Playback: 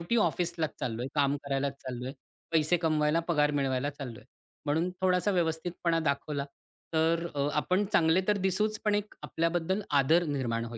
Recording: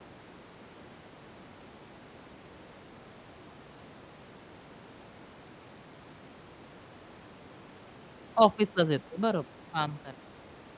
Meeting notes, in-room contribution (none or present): present